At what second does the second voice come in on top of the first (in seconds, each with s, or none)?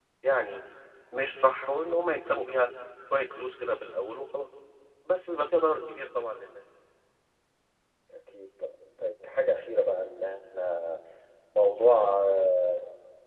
none